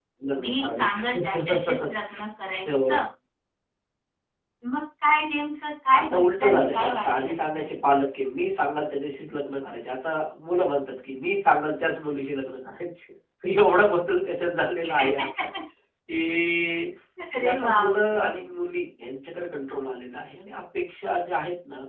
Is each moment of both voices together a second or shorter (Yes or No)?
No